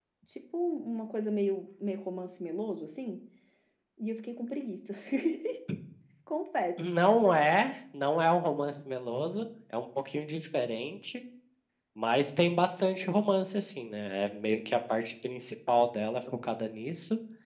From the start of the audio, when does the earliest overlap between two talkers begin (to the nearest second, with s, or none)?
none